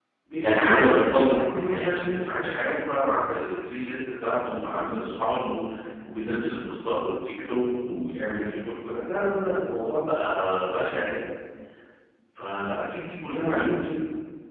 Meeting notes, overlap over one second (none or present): present